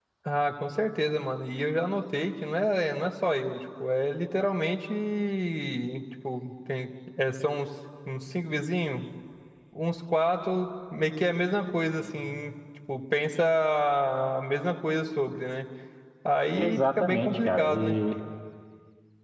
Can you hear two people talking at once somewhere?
Yes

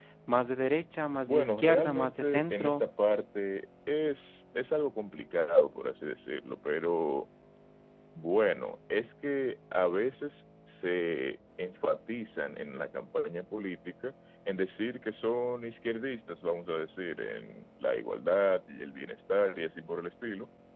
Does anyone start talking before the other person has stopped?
Yes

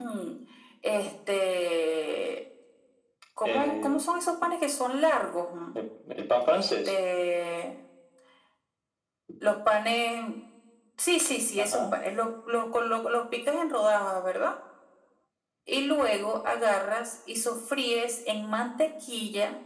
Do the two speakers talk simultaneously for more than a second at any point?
No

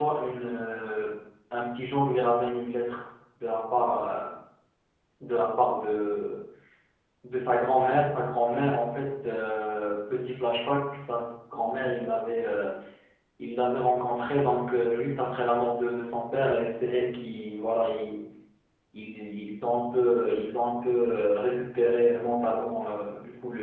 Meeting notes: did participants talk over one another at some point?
No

